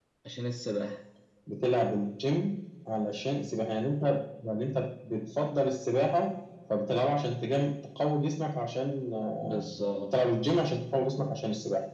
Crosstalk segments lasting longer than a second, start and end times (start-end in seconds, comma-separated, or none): none